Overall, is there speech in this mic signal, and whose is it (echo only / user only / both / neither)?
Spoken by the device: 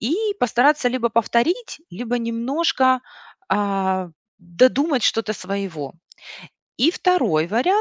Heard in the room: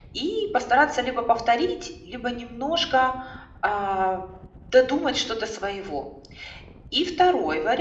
echo only